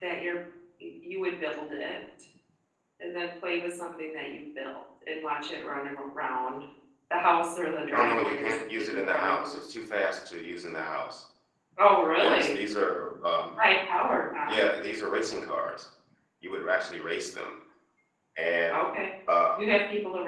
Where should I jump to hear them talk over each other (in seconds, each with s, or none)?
7.9 s